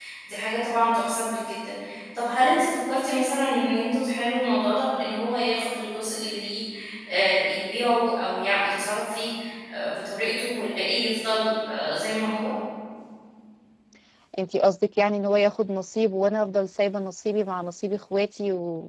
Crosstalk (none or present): none